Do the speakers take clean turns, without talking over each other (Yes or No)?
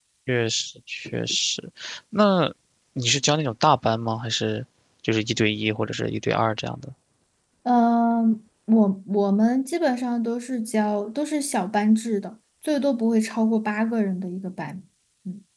Yes